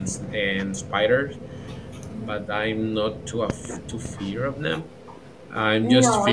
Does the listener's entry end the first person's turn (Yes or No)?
No